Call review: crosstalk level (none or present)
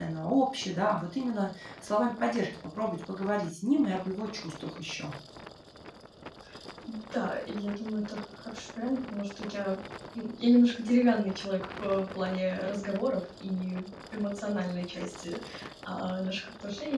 none